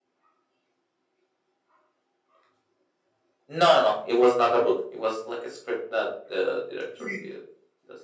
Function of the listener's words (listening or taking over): listening